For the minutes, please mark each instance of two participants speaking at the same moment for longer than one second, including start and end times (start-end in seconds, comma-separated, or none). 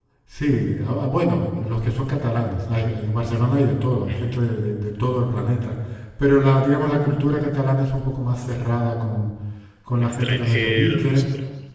9.9-11.2